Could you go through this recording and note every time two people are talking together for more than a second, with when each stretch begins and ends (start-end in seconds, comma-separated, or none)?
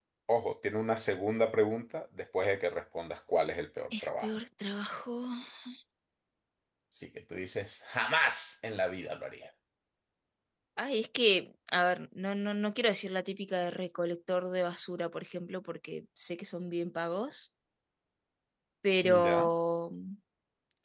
none